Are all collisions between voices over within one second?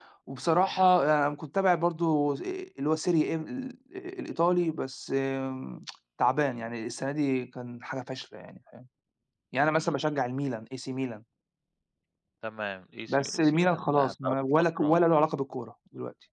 No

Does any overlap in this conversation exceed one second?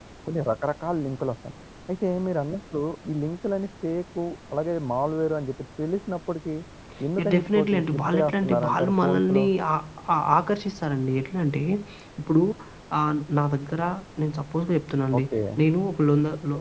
Yes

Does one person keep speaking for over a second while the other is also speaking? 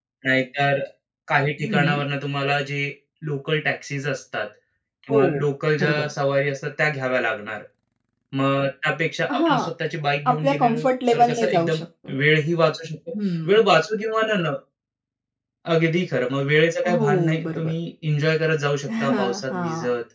Yes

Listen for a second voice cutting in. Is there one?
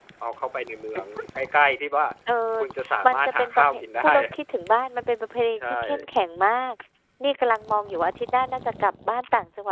Yes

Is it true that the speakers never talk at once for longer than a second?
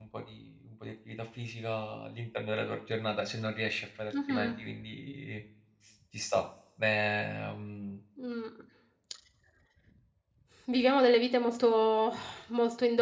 Yes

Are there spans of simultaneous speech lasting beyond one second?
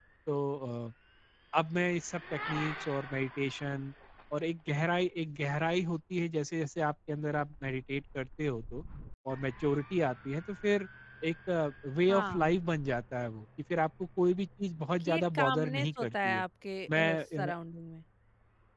Yes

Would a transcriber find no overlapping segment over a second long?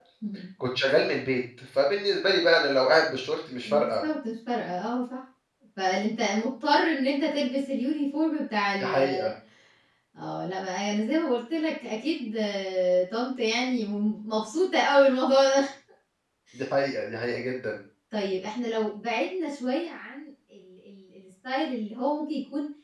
Yes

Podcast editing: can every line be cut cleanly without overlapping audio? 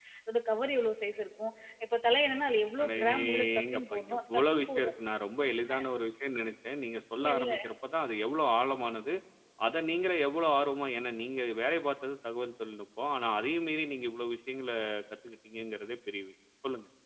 No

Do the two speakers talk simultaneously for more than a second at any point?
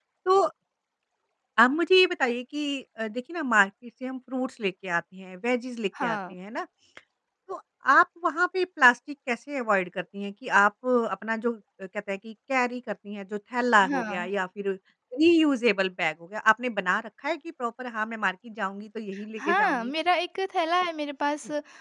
No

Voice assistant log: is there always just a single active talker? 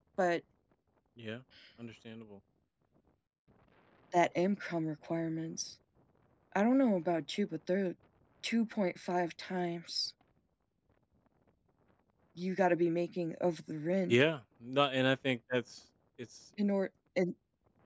Yes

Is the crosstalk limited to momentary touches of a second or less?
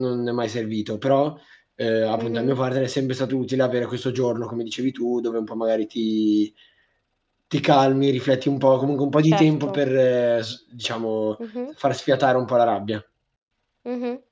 Yes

